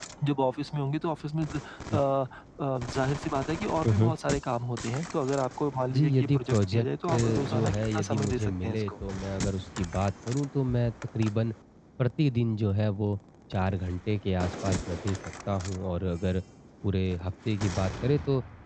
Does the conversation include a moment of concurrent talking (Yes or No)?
Yes